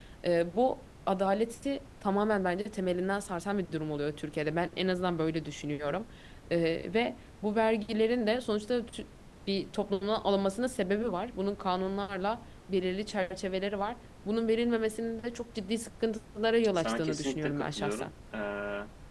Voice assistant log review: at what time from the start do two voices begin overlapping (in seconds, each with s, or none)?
16.8 s